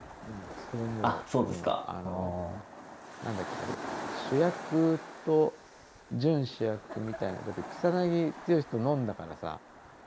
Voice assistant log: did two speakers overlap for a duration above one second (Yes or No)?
Yes